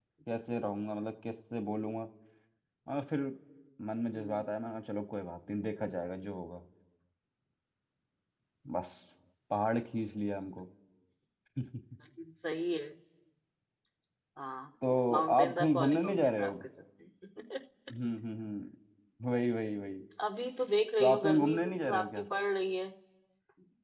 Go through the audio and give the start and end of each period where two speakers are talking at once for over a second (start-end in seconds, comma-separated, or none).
15.1-16.5, 21.0-22.2